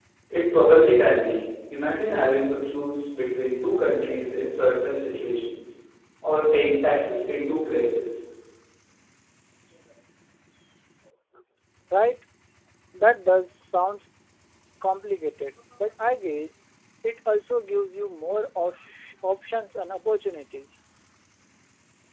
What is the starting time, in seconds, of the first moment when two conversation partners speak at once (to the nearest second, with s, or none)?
none